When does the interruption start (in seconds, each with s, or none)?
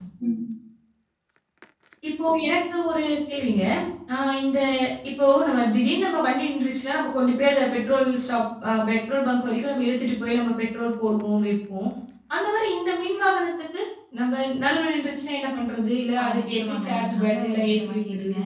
16.2 s